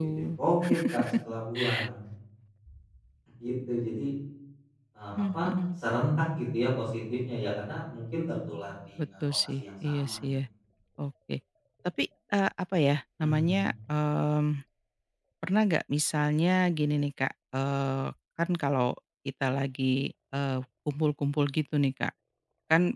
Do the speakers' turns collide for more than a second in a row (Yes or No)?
Yes